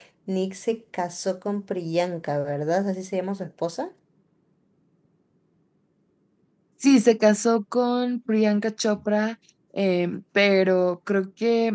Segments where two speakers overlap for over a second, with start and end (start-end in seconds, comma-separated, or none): none